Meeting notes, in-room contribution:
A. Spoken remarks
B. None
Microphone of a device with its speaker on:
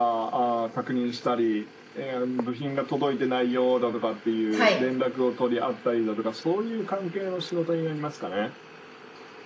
A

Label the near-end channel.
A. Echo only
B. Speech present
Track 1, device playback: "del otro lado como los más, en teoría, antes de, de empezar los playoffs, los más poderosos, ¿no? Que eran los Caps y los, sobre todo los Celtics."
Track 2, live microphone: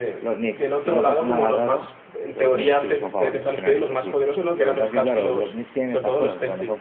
B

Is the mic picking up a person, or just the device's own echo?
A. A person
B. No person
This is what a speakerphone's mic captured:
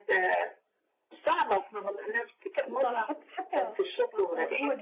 A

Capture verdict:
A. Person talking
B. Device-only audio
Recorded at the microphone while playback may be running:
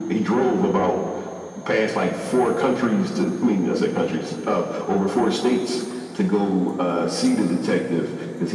B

